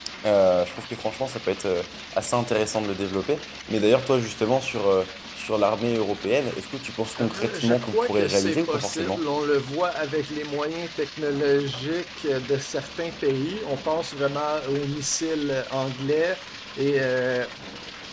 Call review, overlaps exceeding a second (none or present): present